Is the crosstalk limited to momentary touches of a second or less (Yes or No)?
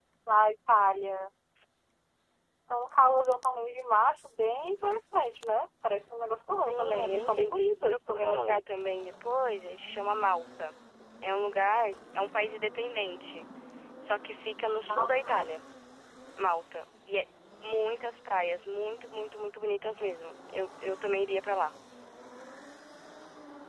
No